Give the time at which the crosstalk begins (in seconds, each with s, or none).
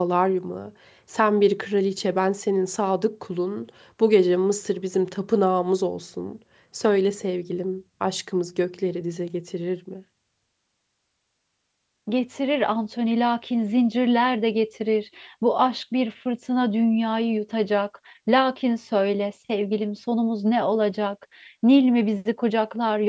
none